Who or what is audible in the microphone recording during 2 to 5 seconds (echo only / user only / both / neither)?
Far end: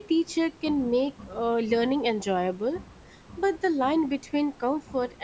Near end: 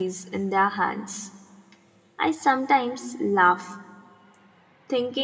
user only